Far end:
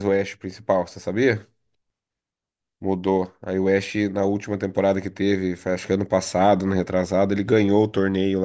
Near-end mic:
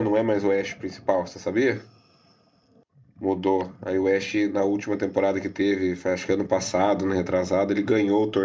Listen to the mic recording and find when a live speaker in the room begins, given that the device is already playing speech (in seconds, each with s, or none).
none